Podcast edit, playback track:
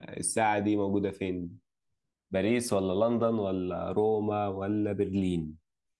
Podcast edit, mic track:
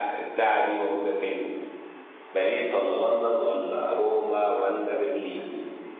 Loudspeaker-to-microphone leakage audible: Yes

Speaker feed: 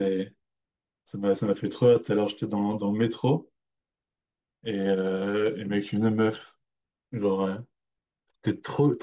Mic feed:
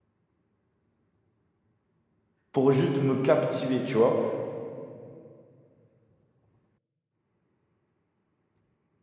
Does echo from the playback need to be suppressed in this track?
No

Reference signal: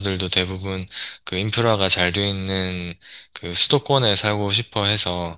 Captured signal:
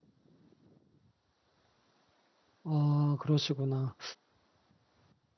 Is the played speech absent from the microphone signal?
Yes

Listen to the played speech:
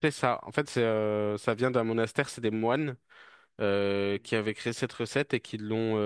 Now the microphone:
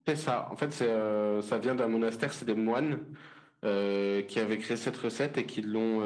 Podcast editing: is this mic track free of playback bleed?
No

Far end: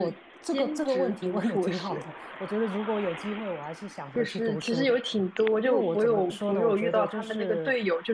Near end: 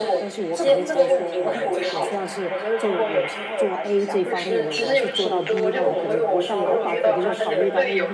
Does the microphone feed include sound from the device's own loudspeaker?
Yes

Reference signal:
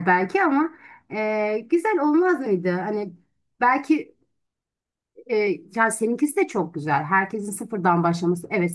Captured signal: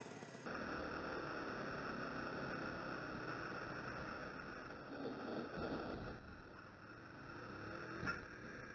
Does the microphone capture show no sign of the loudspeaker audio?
Yes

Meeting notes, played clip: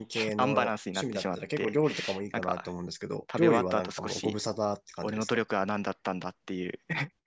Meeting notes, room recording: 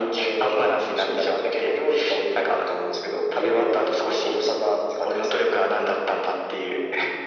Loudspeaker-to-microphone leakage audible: Yes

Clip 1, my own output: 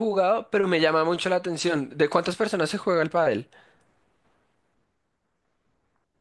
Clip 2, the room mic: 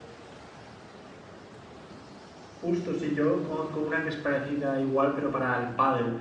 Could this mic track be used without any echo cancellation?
Yes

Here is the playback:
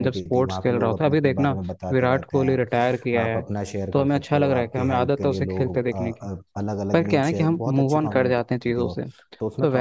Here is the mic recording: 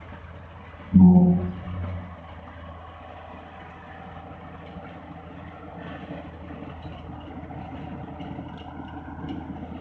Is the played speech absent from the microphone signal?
Yes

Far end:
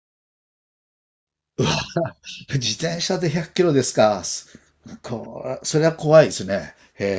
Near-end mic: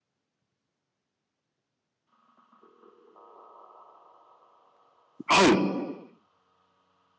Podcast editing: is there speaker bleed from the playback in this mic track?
No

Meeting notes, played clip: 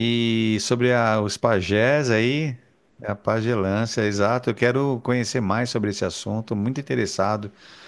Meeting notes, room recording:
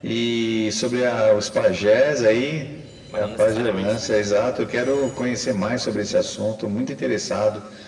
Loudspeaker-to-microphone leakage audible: Yes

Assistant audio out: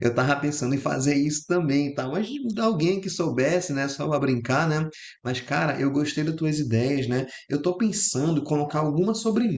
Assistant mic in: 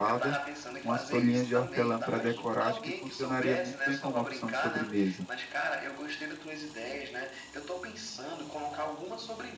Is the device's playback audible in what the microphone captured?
Yes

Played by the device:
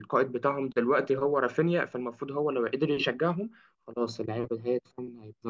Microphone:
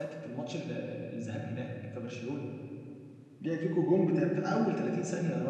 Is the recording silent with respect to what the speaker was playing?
Yes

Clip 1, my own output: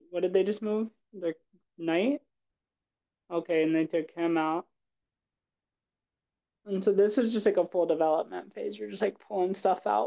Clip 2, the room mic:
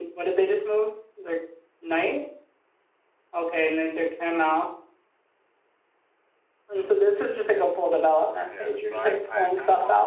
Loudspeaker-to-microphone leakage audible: Yes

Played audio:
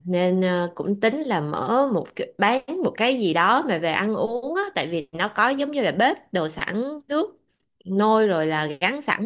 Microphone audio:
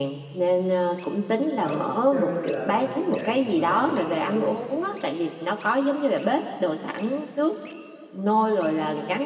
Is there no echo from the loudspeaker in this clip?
No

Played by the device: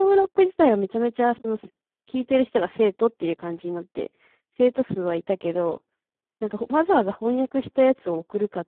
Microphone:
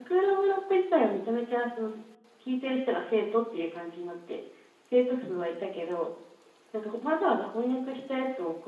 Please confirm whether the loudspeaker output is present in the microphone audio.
Yes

